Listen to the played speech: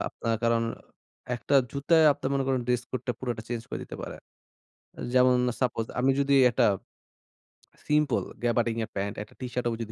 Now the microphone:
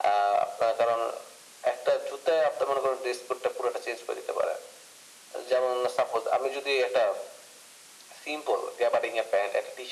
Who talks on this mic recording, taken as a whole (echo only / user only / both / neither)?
echo only